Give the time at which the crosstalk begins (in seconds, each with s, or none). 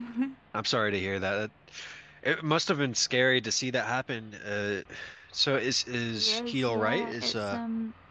6.1 s